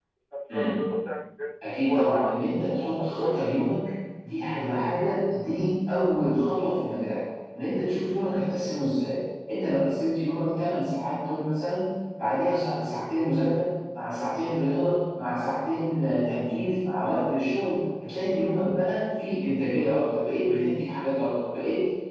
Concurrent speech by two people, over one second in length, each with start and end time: 1.7-3.4

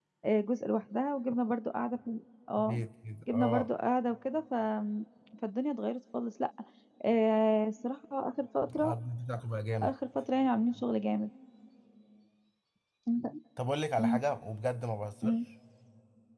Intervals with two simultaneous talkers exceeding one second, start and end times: none

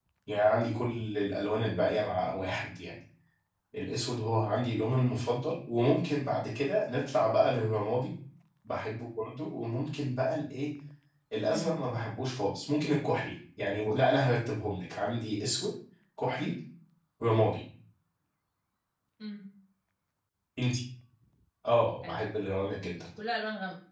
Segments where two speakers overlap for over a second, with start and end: none

